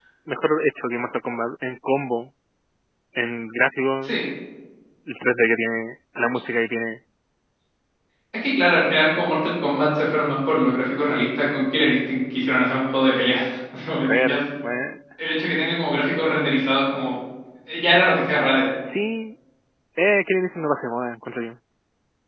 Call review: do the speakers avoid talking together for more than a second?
Yes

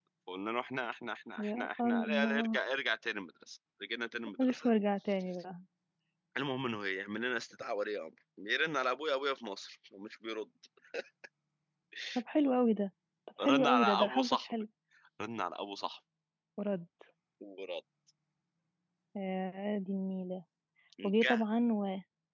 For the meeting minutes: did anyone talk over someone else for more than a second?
Yes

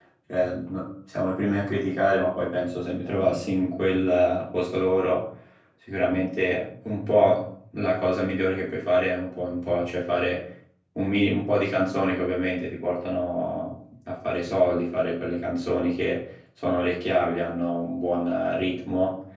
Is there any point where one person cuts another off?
No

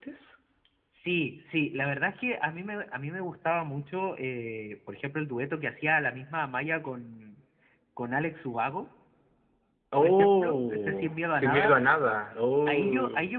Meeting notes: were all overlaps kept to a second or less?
No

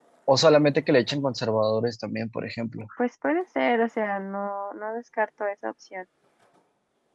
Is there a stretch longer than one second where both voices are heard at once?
No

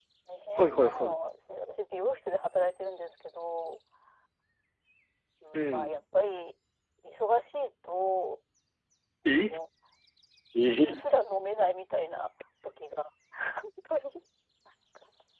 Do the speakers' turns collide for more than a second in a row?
No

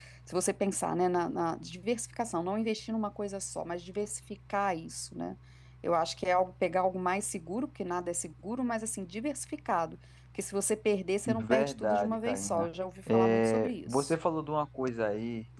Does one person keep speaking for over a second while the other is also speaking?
Yes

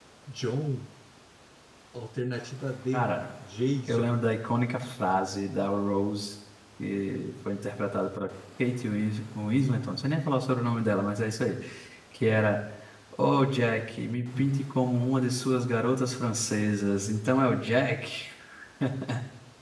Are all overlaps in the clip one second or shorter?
Yes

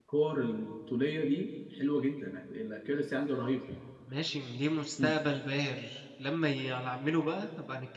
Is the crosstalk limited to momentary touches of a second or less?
Yes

